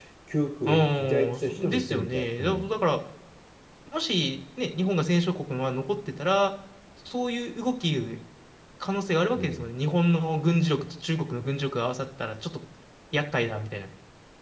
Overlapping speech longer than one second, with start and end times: 0.7-2.7

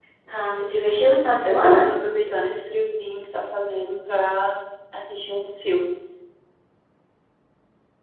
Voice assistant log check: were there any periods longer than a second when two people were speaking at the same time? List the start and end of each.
none

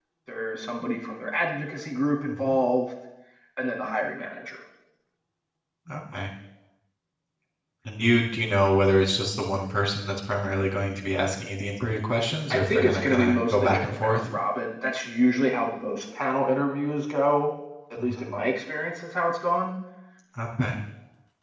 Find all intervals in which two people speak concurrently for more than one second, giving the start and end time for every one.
12.5-14.2

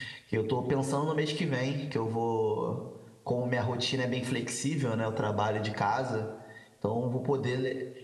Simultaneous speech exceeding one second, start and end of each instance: none

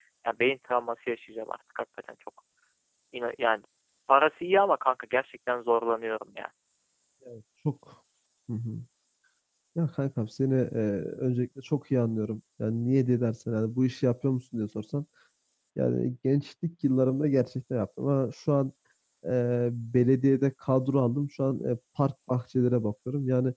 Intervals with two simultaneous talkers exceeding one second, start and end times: none

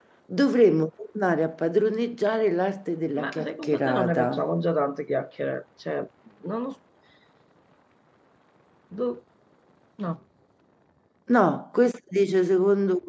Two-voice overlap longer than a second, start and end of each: 3.2-4.4

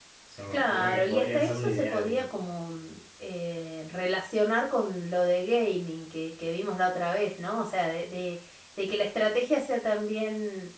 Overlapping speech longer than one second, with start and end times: 0.5-2.3

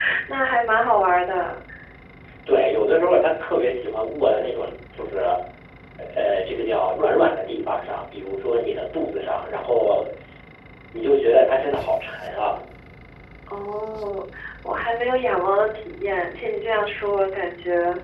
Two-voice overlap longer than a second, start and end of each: none

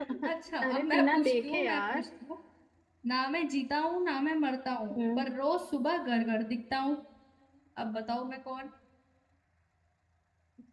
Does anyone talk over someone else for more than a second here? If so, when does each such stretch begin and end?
0.7-2.0

